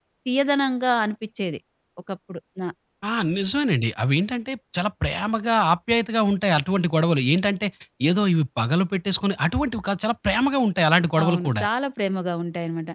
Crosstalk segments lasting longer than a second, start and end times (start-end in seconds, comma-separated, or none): none